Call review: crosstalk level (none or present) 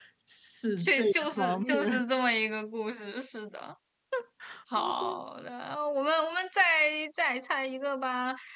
present